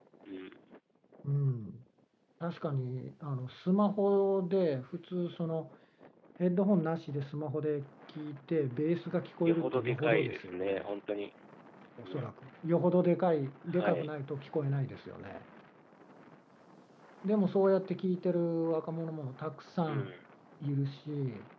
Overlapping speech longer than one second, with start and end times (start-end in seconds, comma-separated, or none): 9.4-10.8